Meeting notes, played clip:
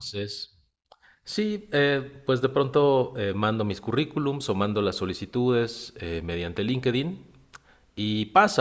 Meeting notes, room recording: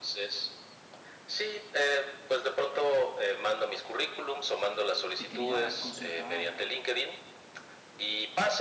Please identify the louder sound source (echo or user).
echo